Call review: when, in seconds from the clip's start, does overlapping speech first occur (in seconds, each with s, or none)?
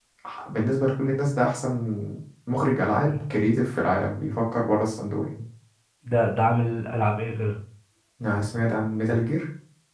none